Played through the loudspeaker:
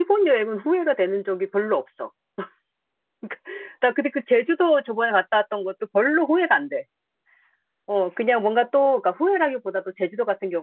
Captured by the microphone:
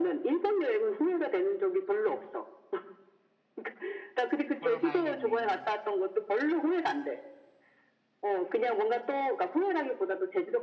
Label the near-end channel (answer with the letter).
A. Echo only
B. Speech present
B